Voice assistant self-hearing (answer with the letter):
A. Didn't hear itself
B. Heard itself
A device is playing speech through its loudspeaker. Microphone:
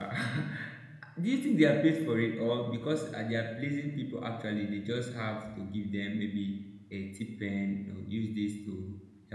A